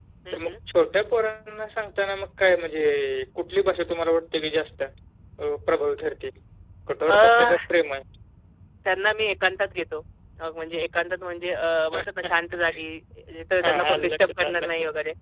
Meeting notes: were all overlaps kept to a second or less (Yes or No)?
No